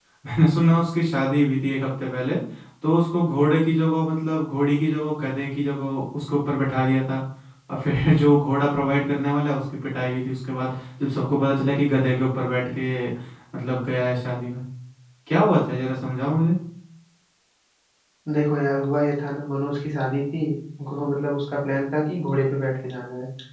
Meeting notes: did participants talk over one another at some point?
No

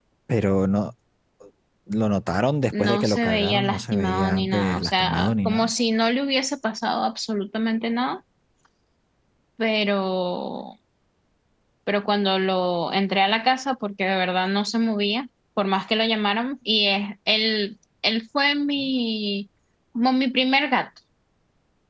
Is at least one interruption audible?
Yes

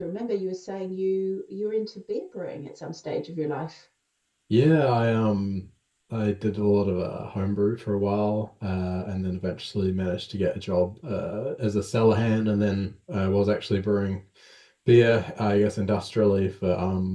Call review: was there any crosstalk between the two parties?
No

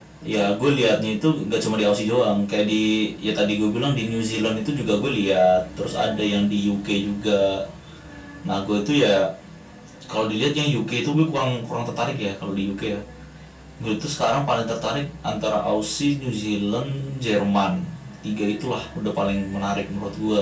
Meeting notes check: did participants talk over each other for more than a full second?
No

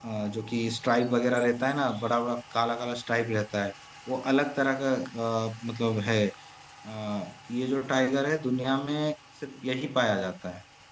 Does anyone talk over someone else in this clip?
No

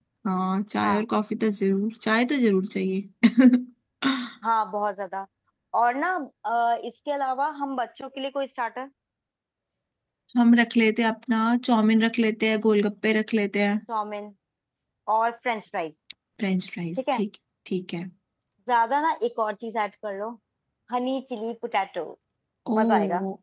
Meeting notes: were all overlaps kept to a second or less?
Yes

